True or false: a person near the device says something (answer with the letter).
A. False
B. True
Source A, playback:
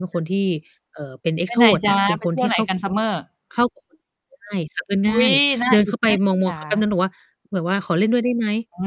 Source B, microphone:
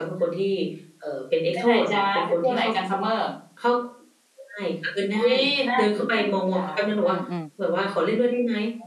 B